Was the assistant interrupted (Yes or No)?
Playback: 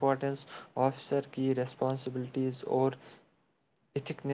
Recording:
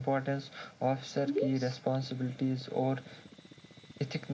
Yes